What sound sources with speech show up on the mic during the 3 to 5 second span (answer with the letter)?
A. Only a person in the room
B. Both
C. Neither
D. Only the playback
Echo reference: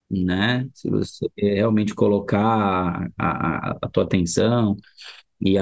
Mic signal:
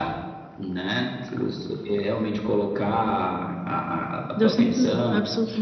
B